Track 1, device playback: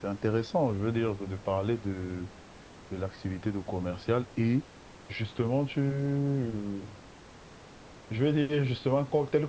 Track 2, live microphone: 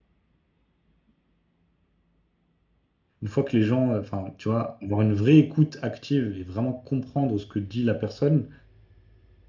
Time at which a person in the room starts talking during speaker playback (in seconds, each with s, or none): 3.2 s